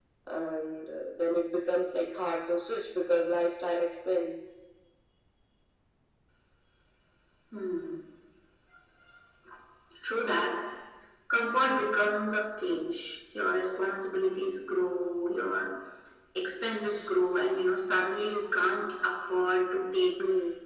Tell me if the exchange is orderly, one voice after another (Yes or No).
Yes